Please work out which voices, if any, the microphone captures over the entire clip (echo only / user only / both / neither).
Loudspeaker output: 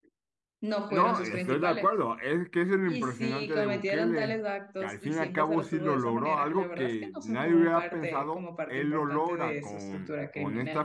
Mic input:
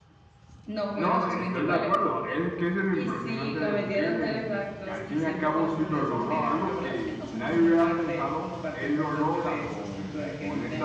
echo only